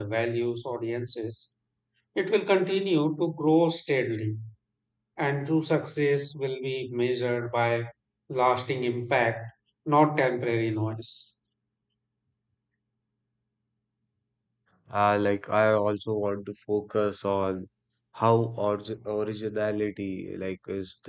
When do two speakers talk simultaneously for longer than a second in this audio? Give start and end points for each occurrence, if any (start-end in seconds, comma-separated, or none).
none